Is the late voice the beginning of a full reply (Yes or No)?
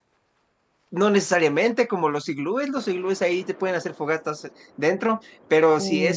No